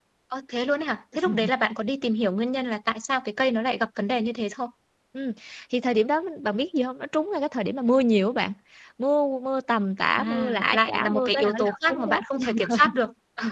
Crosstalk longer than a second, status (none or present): present